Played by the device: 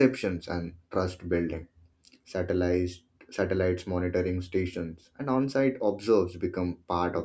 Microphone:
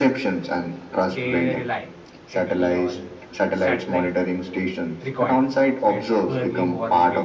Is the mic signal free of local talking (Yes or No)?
No